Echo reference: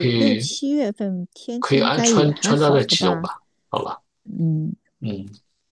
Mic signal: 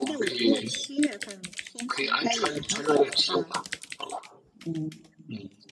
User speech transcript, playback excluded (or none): none